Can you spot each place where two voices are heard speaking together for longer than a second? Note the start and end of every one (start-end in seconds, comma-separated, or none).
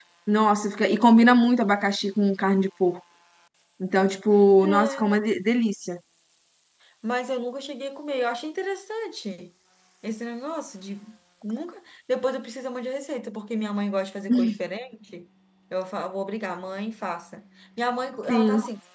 none